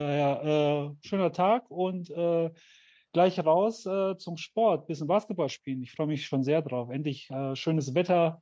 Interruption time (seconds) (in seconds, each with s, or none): none